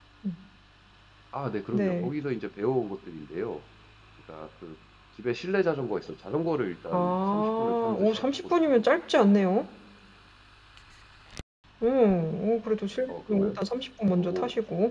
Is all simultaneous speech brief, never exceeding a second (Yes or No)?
No